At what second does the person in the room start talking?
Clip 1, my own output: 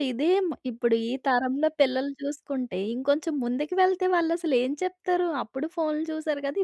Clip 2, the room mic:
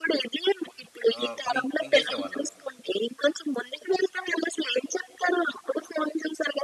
1 s

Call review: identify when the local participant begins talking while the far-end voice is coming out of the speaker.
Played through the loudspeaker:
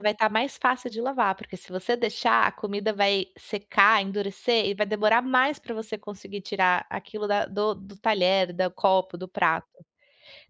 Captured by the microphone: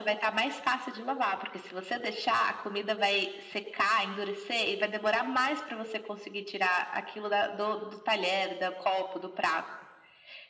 none

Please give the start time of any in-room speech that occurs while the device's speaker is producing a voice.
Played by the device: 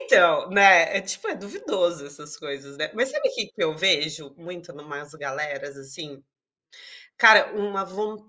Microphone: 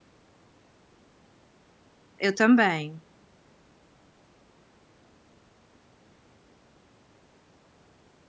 2 s

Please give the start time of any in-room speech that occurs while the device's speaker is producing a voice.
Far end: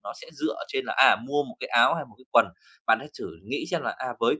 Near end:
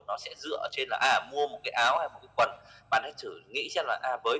none

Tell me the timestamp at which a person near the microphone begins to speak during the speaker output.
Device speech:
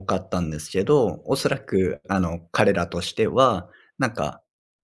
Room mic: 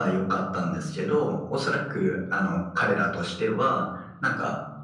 none

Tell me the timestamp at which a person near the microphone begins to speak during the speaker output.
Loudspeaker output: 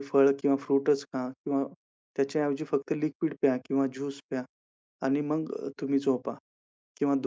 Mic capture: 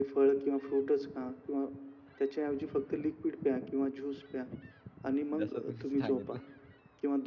5 s

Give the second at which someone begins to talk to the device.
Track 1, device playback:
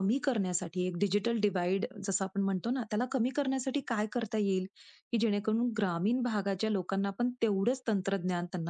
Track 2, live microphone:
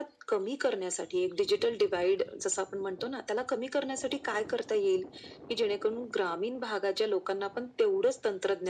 none

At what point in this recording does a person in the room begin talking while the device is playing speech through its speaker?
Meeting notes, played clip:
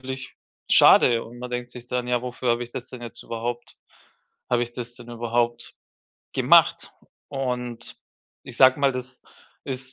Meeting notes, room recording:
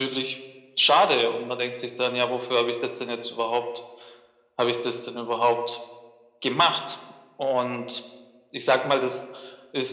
none

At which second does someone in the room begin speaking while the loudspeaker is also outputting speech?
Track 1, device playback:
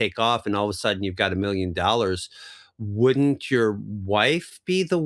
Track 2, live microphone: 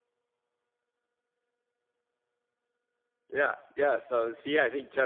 3 s

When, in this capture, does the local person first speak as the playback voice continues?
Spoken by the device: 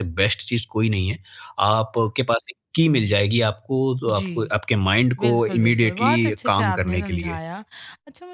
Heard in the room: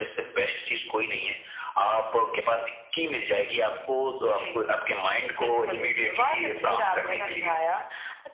6 s

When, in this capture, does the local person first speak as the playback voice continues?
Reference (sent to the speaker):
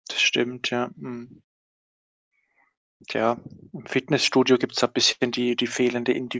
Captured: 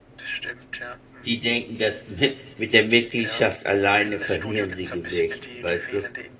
1 s

